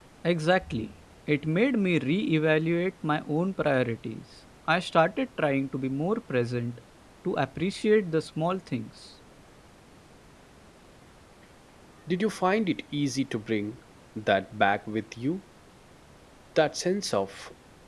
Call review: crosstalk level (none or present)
none